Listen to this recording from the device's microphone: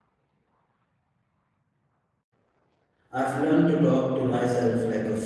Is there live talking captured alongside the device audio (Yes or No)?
Yes